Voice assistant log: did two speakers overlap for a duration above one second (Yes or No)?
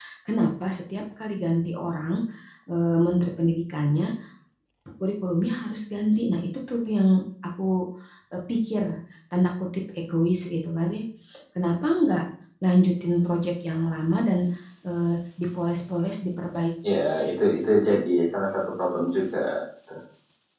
No